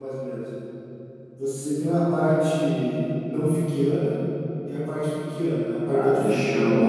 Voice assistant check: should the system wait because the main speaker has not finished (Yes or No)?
No